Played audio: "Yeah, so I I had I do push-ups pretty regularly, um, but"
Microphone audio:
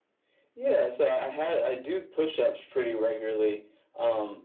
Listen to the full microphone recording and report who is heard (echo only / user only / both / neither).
echo only